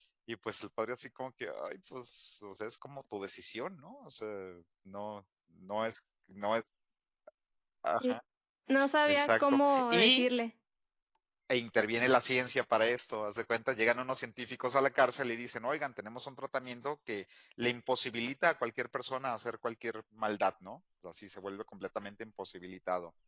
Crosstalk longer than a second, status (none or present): present